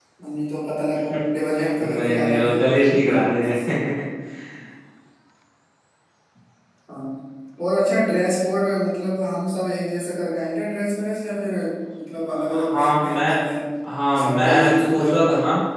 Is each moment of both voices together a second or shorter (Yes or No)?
No